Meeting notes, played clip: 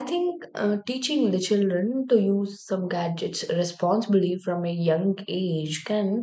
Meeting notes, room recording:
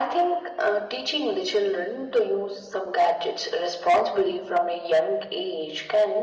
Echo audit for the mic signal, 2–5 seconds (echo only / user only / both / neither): echo only